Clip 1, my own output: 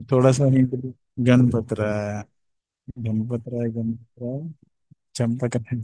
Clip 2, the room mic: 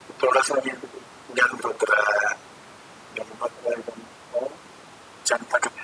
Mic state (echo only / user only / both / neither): echo only